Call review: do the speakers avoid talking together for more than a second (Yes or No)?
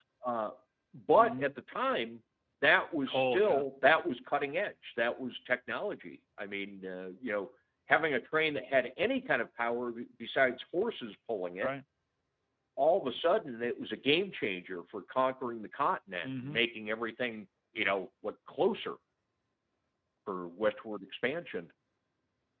Yes